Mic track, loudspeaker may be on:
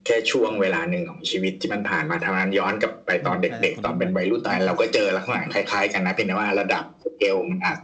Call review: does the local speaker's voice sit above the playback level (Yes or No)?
No